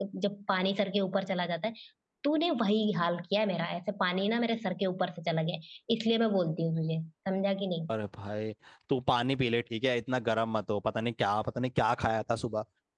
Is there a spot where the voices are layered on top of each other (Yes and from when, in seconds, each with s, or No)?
No